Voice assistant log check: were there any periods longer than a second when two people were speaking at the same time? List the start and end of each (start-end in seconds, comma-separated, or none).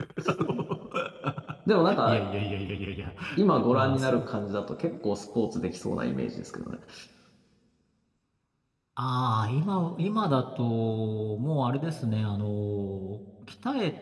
none